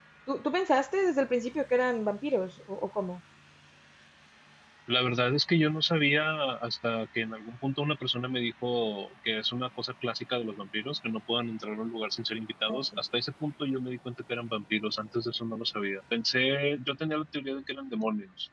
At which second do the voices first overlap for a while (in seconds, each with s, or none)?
none